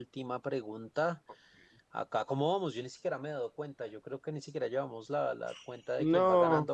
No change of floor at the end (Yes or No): Yes